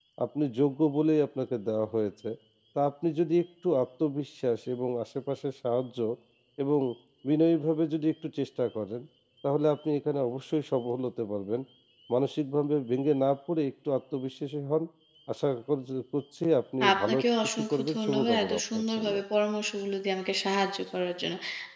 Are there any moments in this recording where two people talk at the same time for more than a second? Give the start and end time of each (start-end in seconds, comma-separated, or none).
16.9-19.1